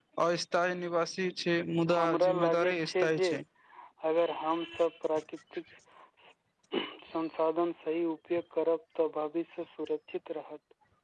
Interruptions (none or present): present